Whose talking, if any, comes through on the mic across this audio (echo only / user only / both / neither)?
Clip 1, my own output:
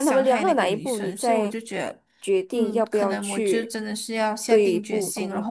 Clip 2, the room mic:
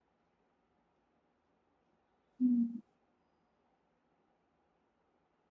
user only